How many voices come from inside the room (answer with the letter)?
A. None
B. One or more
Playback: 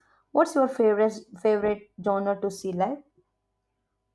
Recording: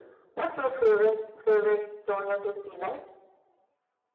A